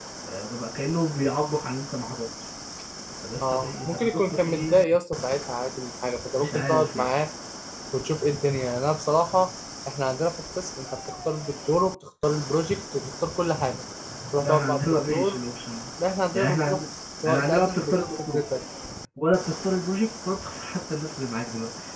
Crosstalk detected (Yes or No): Yes